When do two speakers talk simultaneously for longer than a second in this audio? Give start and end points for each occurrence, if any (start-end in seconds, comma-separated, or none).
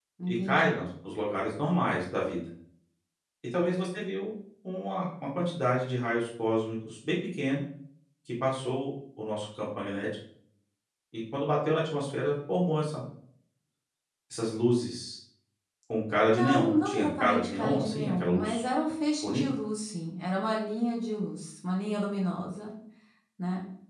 16.3-18.6